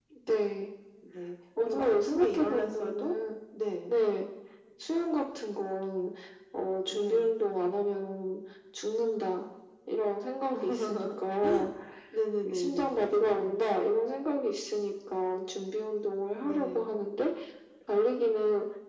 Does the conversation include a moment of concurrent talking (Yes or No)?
Yes